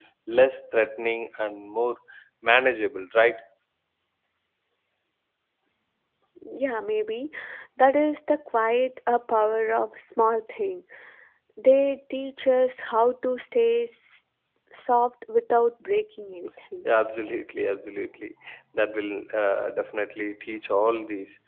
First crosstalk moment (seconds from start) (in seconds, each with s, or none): none